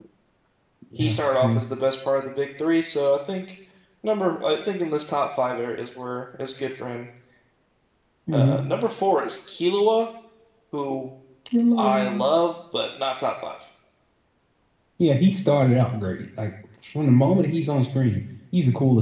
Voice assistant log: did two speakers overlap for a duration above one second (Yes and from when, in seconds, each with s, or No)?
No